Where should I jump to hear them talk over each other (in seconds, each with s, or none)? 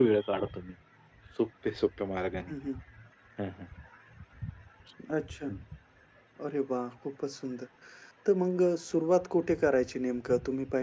none